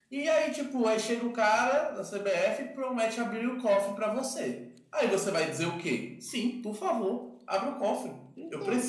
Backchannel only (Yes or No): Yes